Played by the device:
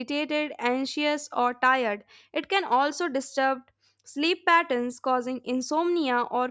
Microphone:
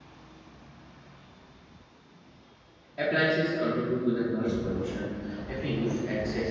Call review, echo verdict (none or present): none